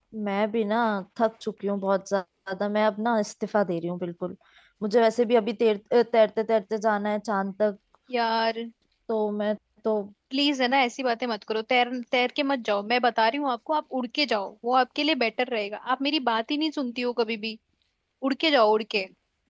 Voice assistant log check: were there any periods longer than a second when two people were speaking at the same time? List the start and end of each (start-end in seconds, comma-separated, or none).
none